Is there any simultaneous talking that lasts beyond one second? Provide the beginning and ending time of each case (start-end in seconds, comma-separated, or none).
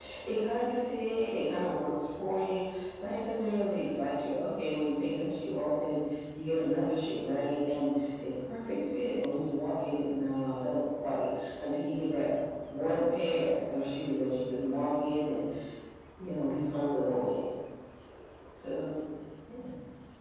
none